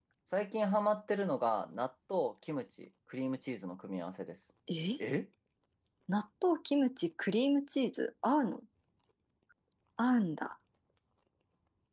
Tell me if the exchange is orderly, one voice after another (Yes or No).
Yes